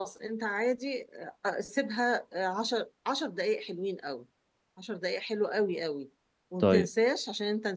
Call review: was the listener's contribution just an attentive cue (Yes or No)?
Yes